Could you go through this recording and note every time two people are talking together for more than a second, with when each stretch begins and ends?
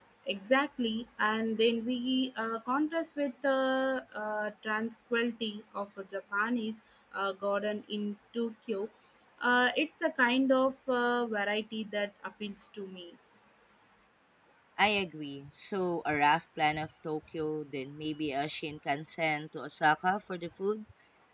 none

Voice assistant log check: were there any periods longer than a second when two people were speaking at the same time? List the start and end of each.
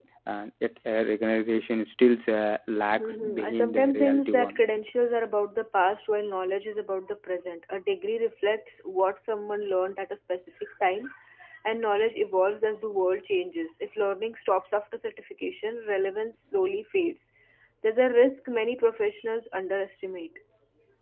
3.0-4.6

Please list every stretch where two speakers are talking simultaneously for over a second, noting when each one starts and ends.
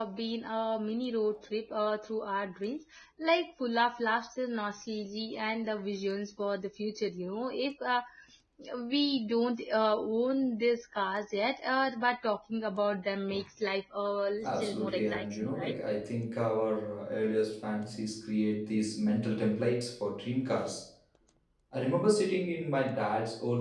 14.4-15.7

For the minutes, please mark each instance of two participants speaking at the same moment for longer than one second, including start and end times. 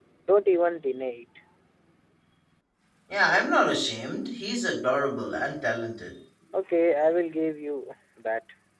none

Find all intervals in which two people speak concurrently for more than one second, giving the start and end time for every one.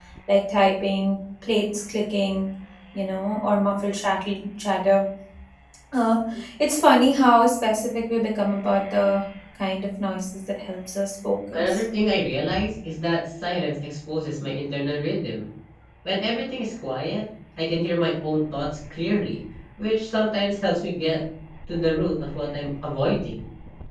none

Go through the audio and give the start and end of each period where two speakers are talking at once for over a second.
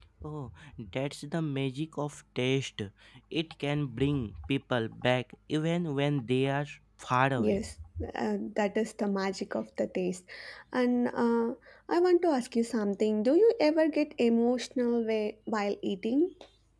none

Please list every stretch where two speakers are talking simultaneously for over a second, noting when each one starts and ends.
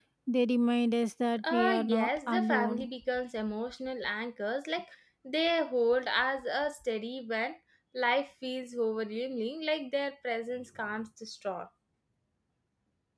1.5-2.9

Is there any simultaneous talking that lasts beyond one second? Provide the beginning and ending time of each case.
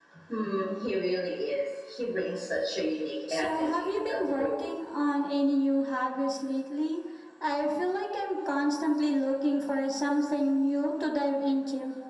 3.3-4.7

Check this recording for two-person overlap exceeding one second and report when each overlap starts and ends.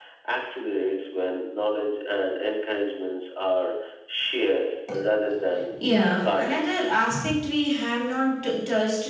none

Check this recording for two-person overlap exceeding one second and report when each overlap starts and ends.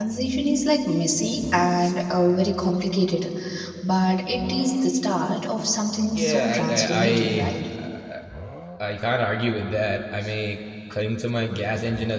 6.1-7.5

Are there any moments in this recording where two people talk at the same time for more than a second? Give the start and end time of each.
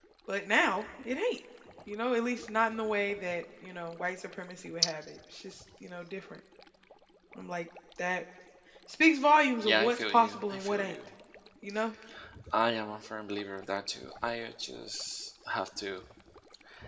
9.6-10.9

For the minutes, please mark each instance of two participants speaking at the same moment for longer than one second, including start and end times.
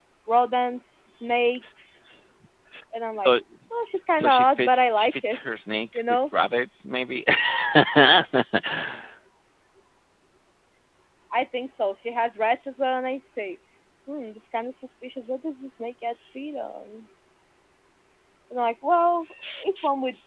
4.2-5.4

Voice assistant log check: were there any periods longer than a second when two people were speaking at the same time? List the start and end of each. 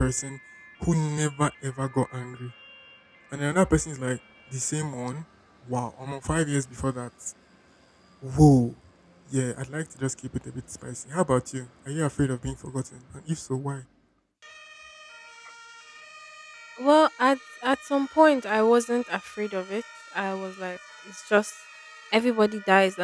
none

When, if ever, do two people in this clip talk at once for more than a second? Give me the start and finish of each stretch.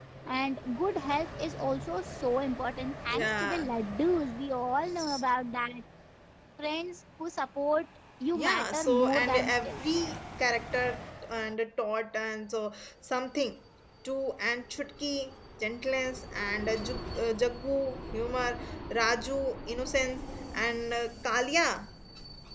8.4-9.8

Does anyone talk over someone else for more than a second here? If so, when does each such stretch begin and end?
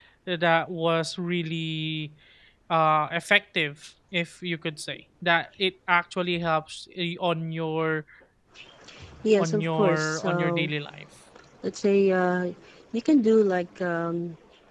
9.4-10.7

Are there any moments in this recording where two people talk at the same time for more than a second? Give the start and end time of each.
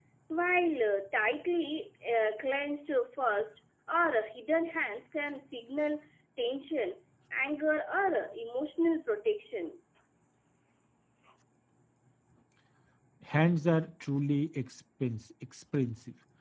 none

